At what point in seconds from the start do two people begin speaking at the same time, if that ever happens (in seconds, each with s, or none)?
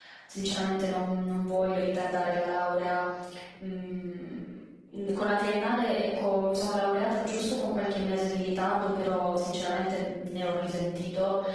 none